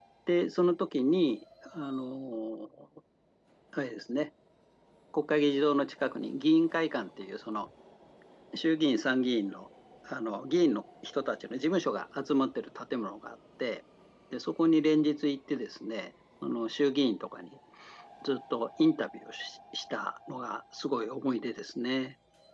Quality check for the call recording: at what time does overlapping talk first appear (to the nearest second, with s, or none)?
none